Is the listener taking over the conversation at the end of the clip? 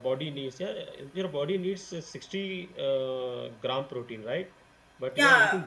Yes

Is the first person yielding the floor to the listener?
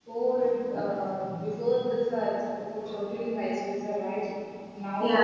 No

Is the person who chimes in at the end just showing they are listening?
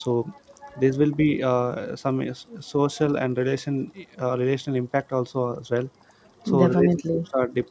Yes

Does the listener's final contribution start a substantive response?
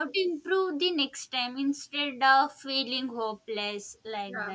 No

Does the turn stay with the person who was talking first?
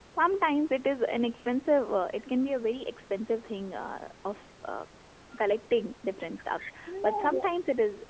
Yes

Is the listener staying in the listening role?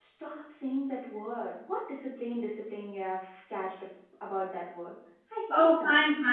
No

